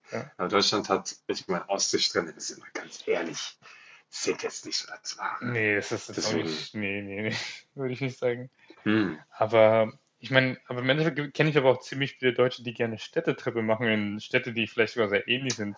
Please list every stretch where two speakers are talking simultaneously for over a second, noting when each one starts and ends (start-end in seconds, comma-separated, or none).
none